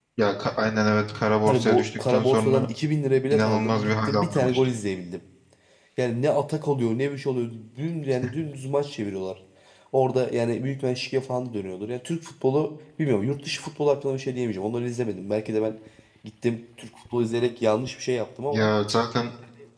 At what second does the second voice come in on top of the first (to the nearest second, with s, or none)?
1 s